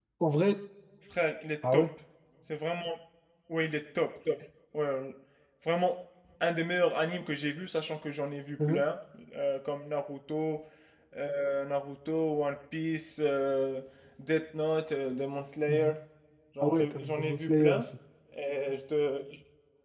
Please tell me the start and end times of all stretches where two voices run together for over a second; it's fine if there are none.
16.6-17.9

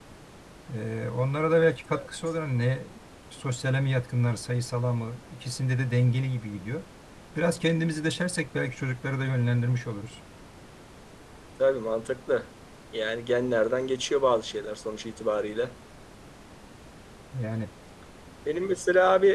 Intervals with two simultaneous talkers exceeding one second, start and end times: none

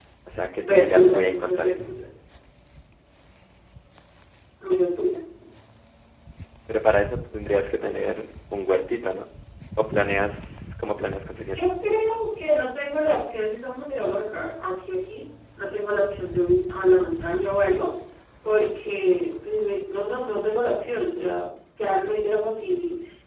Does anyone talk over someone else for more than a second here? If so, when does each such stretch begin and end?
0.7-1.9

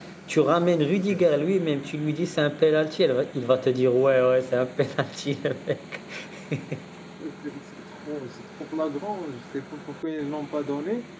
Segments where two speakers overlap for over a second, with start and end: none

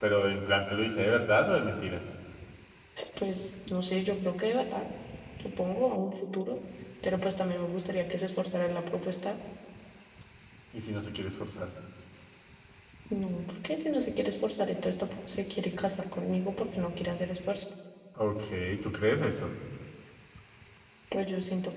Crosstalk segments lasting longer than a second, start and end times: none

